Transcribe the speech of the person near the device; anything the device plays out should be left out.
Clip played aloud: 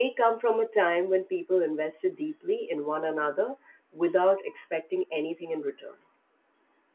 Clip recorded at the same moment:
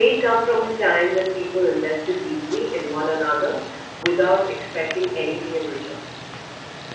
none

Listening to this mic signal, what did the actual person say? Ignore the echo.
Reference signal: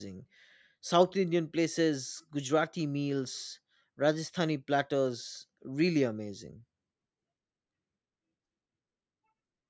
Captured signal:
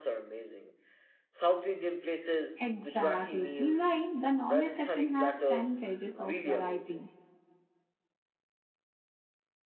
Exactly. Meanwhile, the non-veg section has 10 pages of variety.

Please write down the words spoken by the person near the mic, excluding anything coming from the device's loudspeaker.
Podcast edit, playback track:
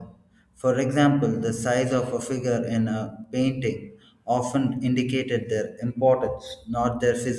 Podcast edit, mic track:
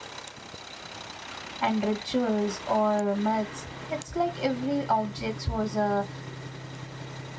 and rituals or myths. It's like every object was a

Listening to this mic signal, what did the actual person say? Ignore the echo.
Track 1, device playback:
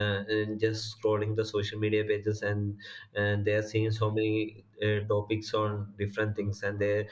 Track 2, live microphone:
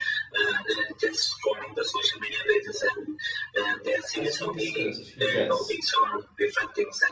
as we discussed yes

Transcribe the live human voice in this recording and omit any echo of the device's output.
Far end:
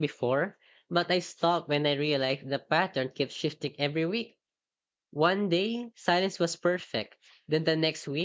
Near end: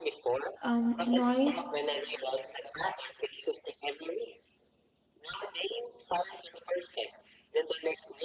Um, noise,

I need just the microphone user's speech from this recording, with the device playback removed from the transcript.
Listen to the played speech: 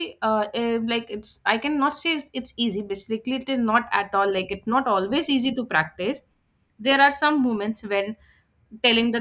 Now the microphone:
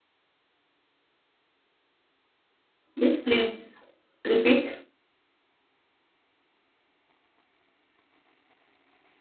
Yes, please repeat.

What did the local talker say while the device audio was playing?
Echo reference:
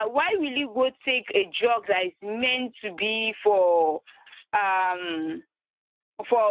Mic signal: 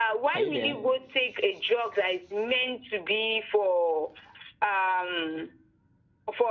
Are you there?

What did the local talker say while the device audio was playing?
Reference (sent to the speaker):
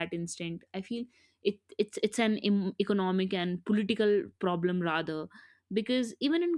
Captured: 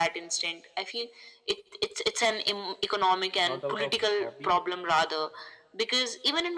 not out of hobby

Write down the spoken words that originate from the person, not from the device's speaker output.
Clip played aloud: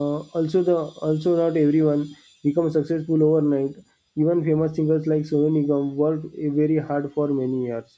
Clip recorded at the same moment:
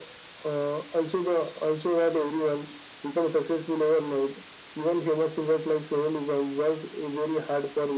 none

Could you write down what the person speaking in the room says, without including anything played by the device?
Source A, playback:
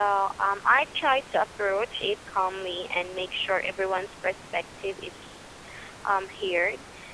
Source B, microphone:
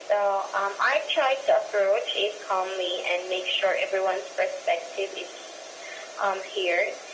none

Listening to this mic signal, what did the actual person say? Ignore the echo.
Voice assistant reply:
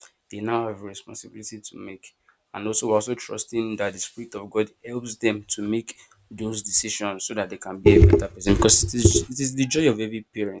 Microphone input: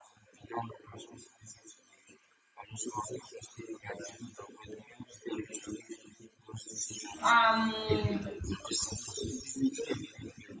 um

